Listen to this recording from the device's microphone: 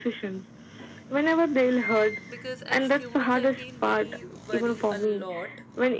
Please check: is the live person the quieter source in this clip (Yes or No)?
Yes